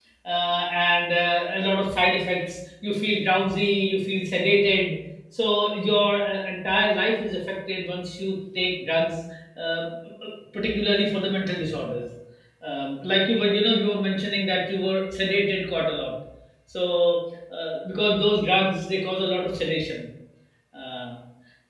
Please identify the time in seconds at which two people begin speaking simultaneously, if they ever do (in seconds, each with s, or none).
none